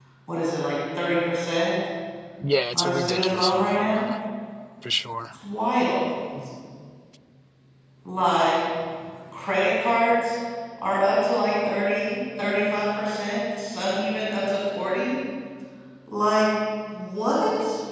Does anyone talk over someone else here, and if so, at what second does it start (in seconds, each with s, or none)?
2.7 s